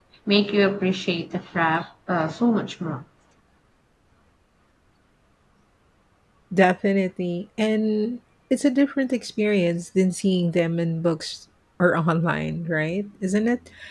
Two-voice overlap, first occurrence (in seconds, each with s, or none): none